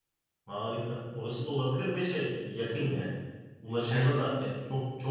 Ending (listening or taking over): listening